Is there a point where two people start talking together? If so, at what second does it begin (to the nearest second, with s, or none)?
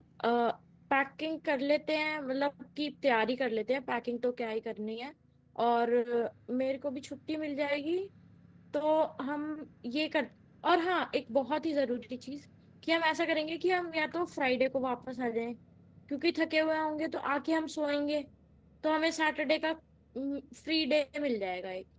none